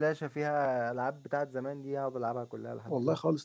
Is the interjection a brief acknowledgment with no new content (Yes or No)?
No